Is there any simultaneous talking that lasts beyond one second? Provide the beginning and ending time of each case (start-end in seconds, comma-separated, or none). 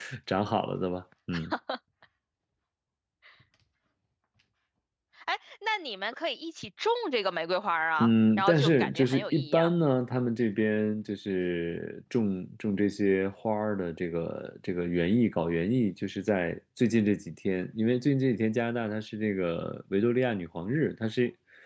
8.0-9.7